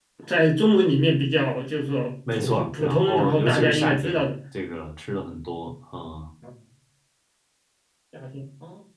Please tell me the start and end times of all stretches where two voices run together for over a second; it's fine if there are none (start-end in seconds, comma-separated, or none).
2.3-4.2